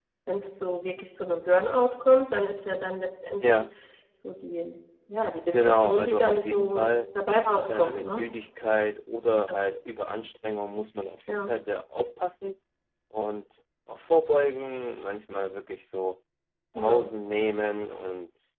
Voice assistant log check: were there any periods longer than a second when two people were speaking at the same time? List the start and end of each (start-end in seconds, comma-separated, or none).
5.5-6.9